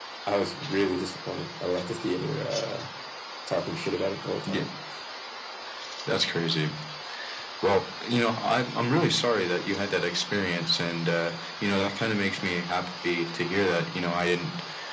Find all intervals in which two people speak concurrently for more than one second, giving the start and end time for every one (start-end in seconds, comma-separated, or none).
none